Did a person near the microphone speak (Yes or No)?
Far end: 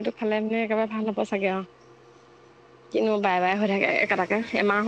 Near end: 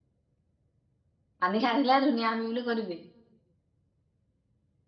Yes